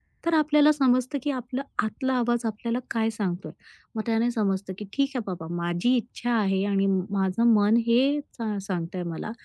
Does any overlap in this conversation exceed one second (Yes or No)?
No